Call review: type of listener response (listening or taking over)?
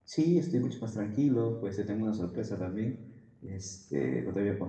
listening